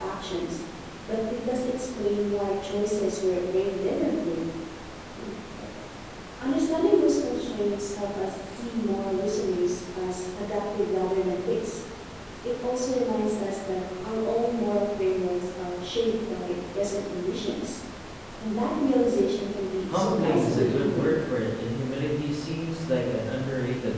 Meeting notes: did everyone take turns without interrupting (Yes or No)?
No